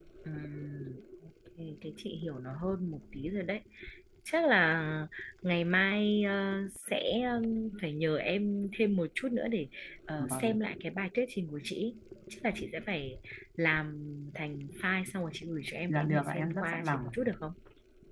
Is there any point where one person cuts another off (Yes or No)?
Yes